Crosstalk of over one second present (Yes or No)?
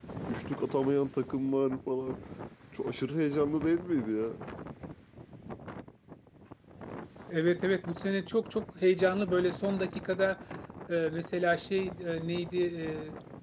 No